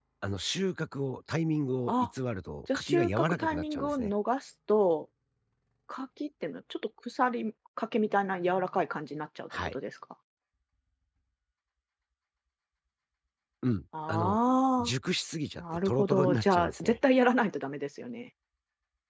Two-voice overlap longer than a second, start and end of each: 2.7-4.1, 15.6-17.0

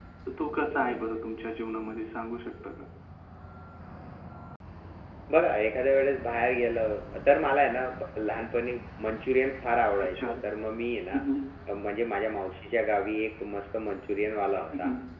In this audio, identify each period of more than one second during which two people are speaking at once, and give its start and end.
none

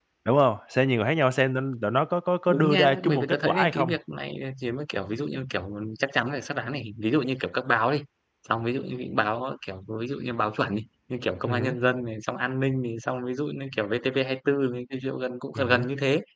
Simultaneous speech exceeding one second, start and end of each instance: 2.5-3.9

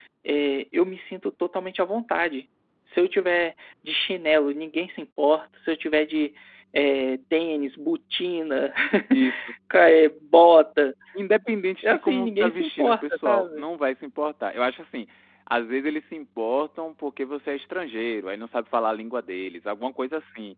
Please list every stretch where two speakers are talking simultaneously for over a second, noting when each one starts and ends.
11.8-13.7

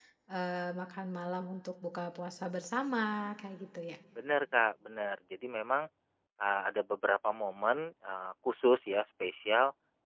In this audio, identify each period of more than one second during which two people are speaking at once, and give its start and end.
none

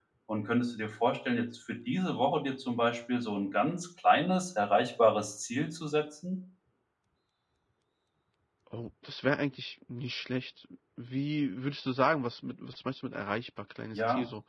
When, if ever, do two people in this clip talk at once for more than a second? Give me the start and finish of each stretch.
none

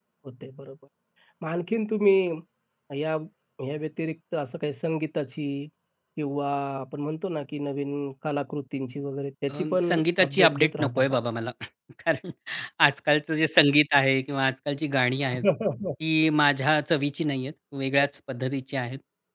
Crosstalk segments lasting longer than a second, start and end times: 9.5-11.2

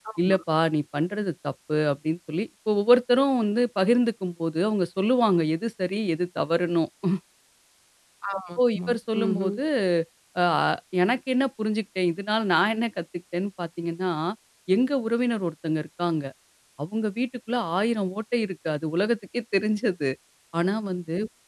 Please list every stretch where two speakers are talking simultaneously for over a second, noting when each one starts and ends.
8.4-9.6

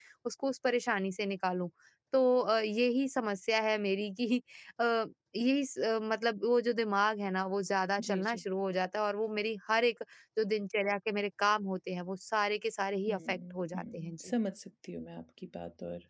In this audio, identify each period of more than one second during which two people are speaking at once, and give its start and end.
13.1-14.3

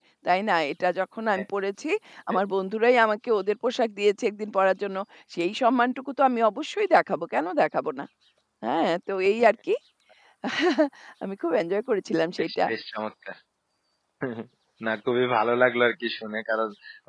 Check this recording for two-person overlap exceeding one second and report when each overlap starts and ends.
none

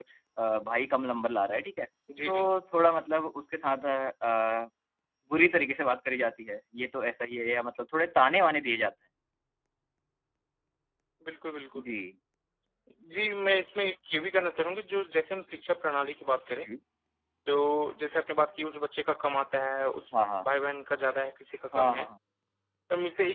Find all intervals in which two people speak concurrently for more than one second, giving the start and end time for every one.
none

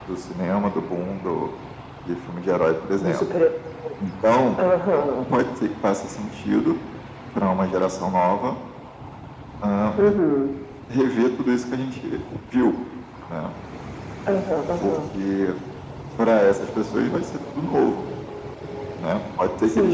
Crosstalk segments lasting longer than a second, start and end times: none

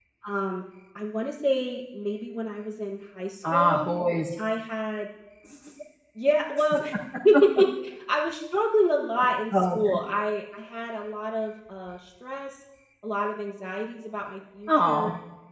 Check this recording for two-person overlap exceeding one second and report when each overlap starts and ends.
none

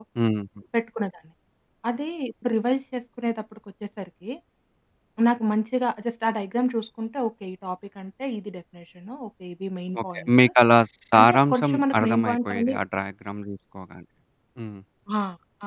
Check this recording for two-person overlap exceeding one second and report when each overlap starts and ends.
11.2-12.8

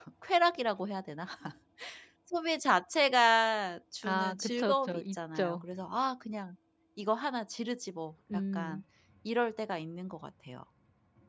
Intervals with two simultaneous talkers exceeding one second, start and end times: 4.0-5.6

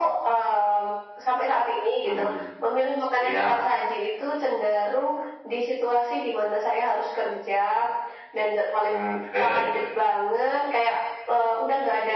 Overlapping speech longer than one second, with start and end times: none

